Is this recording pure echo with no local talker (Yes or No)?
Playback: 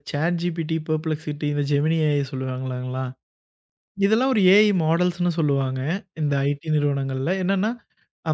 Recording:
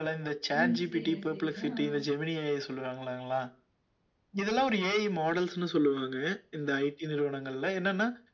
No